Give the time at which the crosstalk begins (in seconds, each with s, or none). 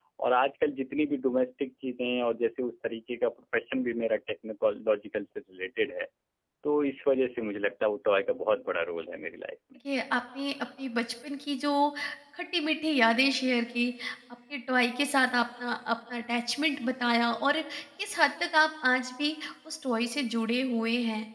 none